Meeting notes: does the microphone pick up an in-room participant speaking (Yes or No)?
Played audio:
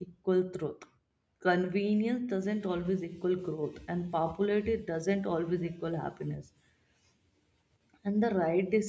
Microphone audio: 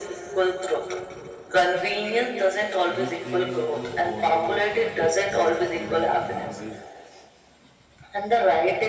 Yes